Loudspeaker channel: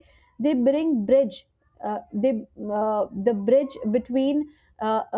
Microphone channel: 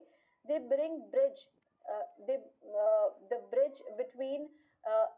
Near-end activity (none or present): none